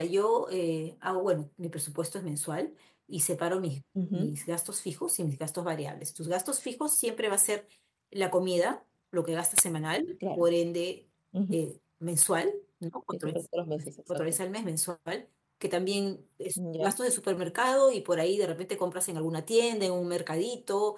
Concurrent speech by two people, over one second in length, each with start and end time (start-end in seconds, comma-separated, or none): none